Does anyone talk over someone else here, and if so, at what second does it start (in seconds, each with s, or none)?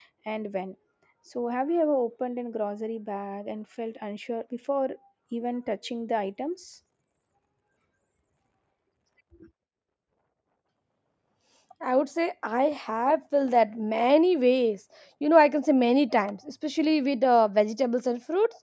none